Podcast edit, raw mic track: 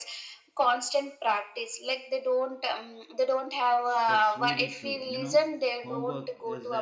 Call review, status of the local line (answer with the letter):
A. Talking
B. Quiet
A